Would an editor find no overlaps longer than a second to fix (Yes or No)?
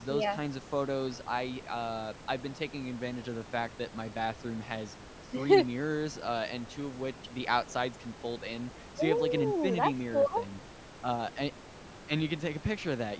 No